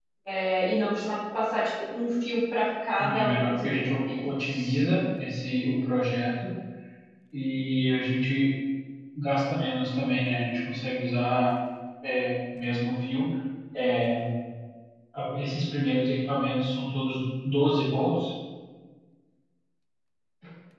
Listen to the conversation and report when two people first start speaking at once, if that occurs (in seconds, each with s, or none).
3.0 s